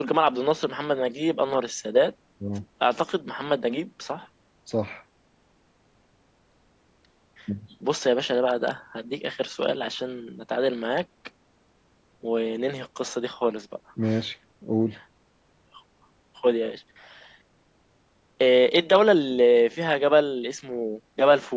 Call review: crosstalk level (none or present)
none